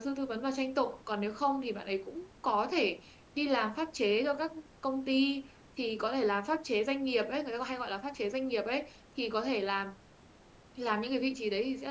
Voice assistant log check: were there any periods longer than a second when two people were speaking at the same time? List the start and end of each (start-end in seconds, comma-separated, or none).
none